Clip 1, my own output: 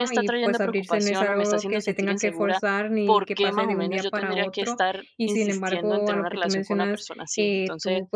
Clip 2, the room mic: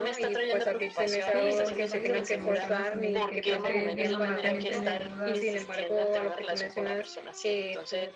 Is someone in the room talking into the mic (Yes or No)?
Yes